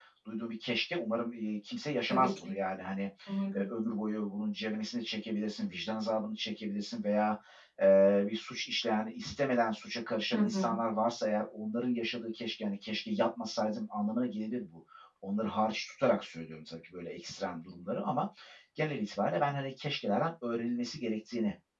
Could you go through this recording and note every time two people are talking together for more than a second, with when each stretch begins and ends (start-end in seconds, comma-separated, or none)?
none